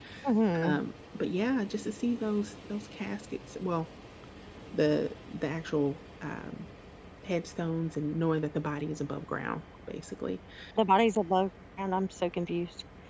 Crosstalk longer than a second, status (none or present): none